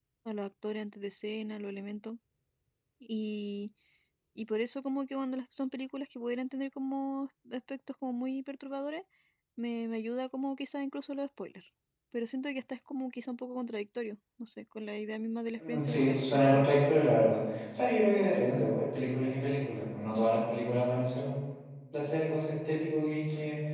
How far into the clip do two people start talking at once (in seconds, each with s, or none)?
15.5 s